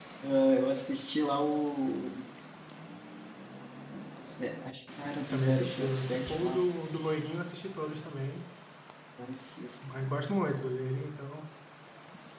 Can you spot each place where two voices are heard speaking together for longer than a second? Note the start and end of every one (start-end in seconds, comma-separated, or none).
5.3-6.6